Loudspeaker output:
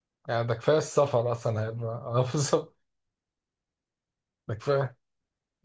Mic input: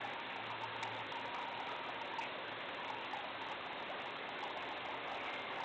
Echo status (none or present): none